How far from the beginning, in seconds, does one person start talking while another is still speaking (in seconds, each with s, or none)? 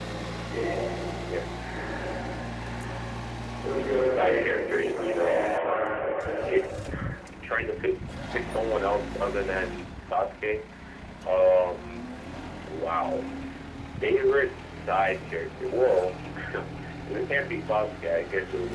4.0 s